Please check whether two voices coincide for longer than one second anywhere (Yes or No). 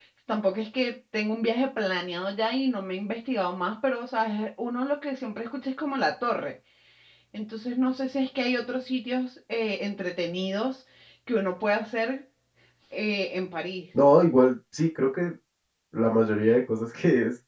No